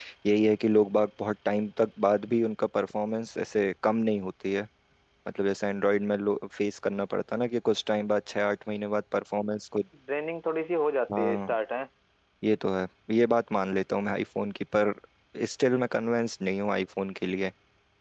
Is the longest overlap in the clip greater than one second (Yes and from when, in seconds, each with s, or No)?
No